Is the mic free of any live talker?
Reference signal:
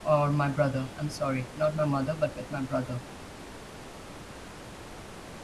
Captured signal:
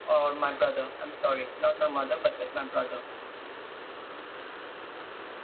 Yes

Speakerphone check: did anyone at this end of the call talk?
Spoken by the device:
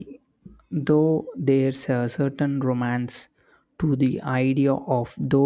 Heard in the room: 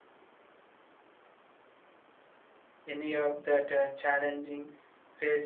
Yes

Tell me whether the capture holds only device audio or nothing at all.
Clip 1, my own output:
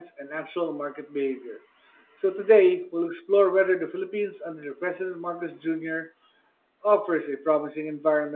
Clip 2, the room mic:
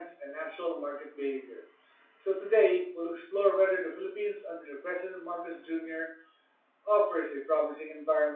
Yes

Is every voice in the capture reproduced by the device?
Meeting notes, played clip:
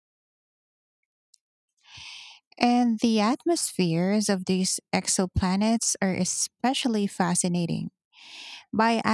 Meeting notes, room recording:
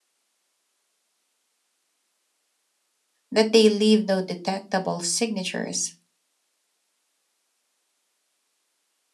No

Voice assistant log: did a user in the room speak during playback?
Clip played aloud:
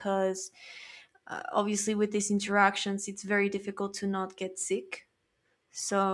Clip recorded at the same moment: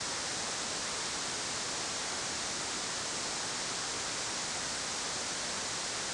No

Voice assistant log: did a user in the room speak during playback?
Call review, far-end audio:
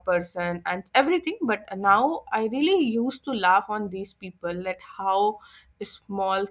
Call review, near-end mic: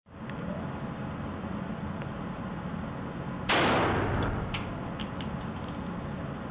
No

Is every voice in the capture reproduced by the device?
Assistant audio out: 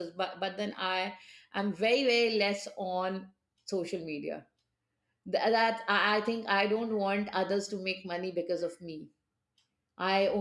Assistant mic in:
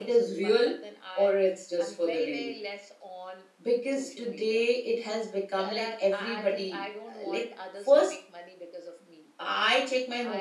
No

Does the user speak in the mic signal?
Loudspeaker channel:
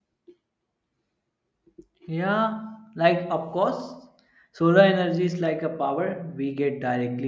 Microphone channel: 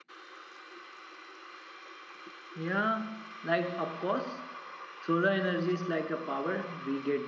No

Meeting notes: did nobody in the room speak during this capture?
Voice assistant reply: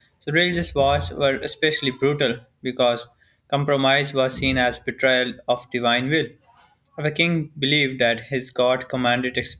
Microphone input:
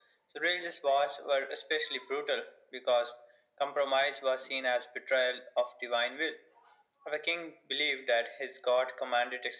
Yes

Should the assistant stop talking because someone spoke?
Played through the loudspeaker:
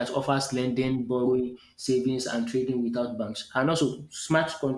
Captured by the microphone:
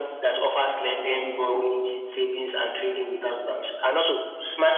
No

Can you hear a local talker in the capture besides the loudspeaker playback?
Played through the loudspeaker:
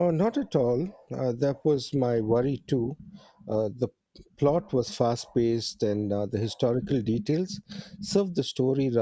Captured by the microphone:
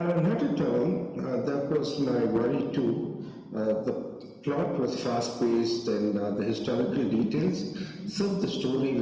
No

